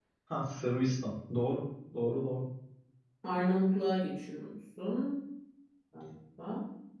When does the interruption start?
none

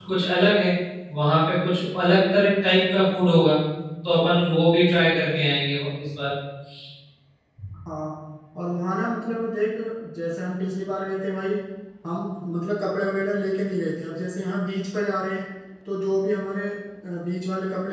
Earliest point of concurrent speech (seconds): none

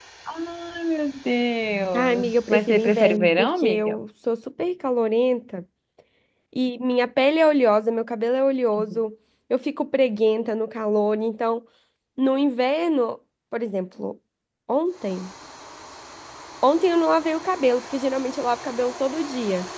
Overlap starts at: 2 s

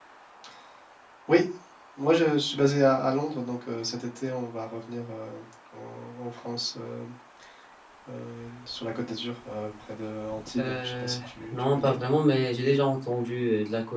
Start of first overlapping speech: 11 s

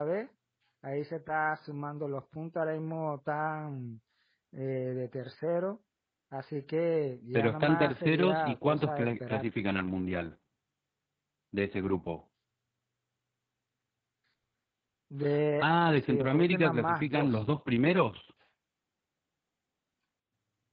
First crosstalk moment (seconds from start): 7 s

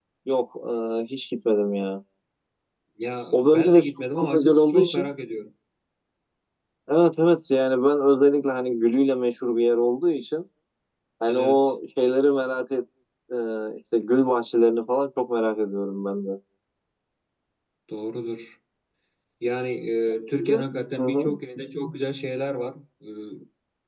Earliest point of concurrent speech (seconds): 3 s

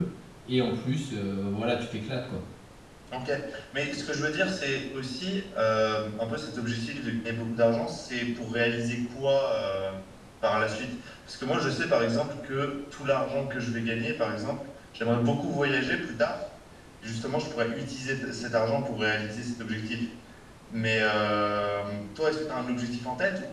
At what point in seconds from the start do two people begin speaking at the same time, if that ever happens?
none

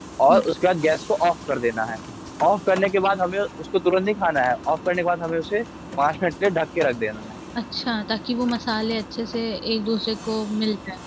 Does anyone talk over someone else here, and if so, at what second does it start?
none

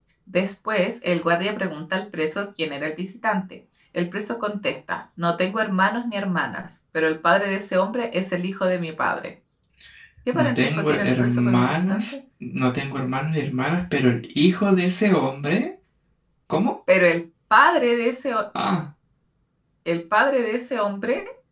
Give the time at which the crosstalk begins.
10 s

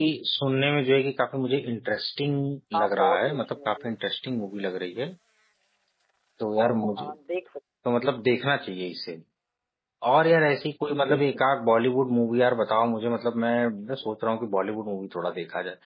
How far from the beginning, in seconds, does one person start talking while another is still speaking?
3 s

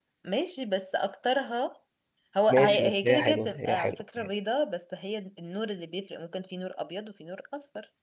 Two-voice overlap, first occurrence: 2 s

